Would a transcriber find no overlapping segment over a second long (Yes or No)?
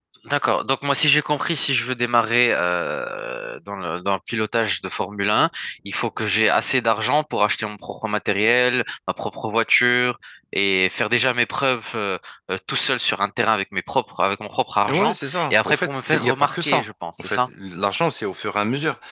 No